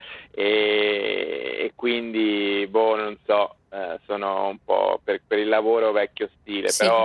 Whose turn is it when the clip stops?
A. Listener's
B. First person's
B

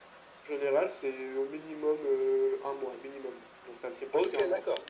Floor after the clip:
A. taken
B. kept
A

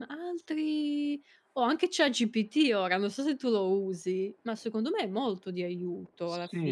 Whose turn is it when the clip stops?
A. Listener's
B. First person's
A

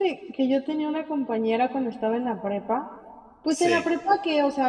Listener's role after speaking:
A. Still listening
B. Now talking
A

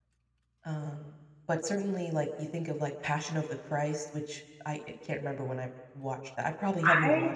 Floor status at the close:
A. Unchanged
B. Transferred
B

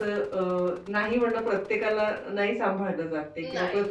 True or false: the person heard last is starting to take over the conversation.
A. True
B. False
B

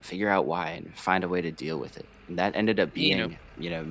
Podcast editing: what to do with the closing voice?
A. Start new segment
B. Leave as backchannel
B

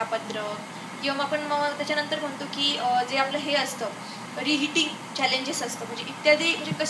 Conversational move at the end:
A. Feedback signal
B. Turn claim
A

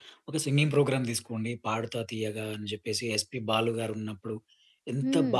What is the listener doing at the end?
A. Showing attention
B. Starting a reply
A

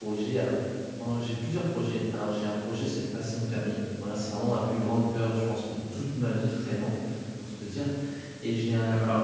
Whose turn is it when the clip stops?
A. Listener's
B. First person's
B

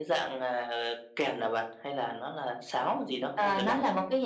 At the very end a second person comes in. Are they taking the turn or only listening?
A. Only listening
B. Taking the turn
B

